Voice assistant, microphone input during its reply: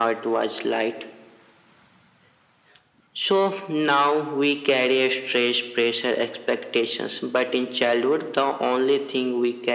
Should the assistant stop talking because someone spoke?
No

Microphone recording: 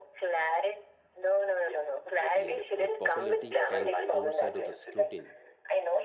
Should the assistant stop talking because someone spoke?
Yes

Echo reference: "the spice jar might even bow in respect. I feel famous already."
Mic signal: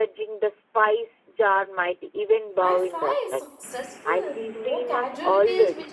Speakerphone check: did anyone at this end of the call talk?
Yes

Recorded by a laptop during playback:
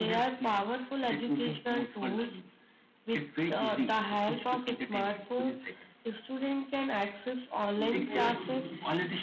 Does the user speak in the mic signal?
Yes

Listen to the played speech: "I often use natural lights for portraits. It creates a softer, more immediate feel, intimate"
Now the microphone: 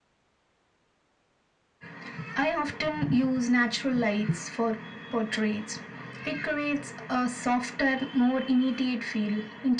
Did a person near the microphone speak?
No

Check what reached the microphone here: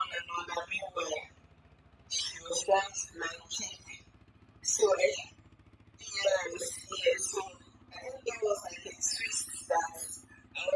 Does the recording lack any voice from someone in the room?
Yes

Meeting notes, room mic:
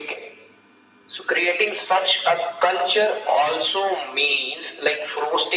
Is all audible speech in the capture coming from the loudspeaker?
Yes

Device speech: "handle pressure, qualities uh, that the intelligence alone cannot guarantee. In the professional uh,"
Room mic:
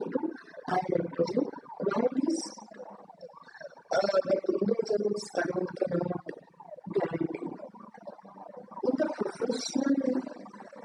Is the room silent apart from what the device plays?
Yes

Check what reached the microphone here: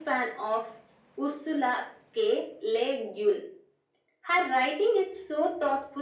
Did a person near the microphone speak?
No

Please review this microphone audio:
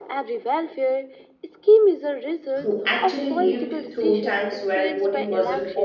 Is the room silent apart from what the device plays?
No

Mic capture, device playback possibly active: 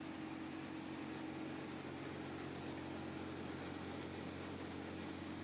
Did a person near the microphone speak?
No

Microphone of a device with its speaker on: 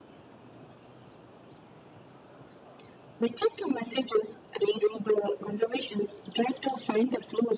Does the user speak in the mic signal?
No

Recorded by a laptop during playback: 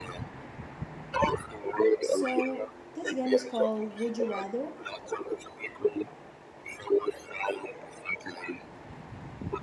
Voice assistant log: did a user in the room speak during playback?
Yes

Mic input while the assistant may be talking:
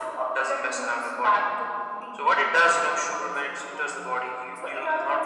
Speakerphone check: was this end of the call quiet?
Yes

